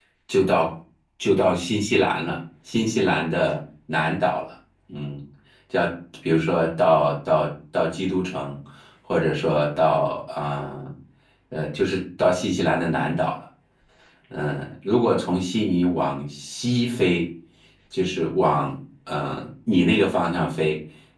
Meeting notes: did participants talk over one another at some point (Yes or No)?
No